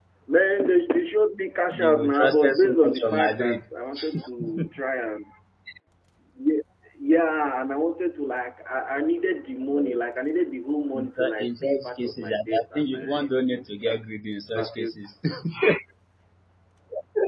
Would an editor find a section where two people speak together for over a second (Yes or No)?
Yes